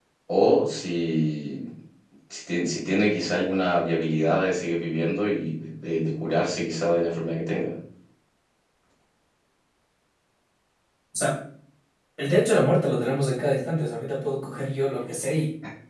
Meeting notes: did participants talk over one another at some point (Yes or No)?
No